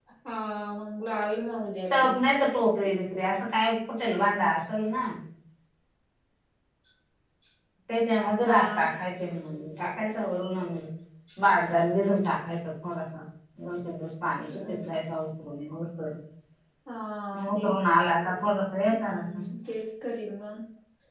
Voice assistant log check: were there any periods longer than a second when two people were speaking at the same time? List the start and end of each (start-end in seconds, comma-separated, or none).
none